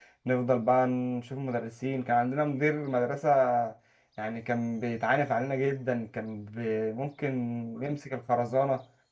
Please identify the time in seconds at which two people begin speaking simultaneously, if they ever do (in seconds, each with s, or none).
none